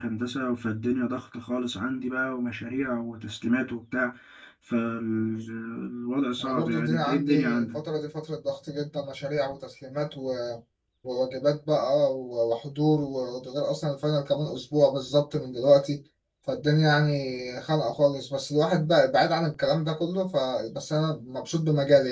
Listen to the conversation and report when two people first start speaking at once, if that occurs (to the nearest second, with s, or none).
6 s